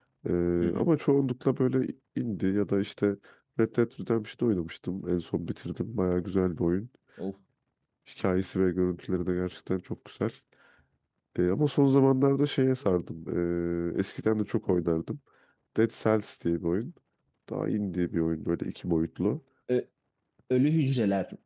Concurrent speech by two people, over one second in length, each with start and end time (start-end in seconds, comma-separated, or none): none